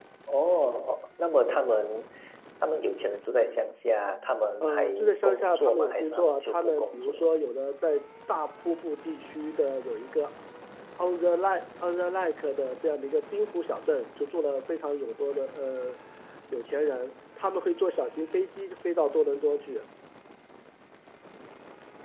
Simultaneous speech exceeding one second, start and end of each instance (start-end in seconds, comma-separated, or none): 4.6-7.2